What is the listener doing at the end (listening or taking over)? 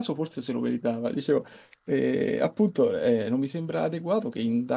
listening